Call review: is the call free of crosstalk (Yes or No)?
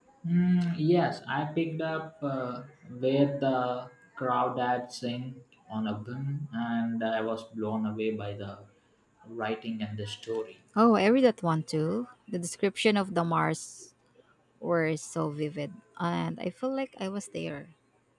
Yes